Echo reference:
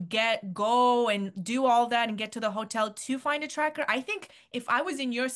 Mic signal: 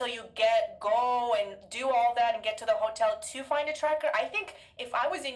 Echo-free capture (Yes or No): No